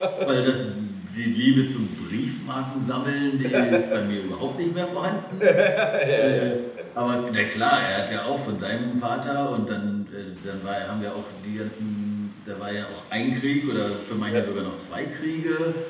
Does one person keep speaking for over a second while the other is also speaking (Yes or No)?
No